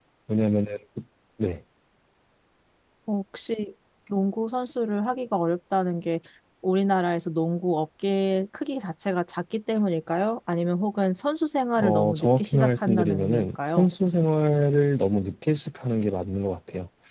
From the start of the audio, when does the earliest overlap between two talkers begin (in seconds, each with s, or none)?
11.8 s